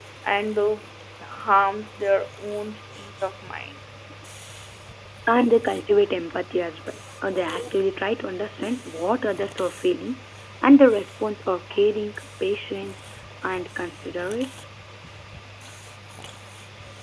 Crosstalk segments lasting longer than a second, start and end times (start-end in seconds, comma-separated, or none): none